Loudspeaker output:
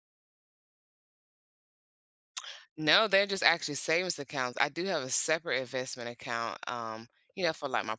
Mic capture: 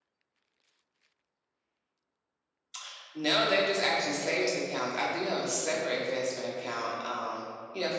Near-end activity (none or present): none